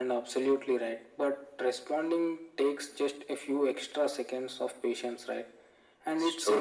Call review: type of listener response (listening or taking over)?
listening